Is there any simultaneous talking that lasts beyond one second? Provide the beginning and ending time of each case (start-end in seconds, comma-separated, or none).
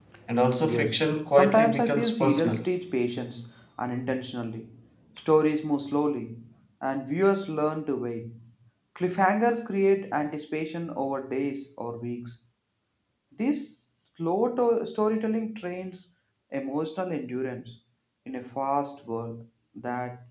0.6-2.7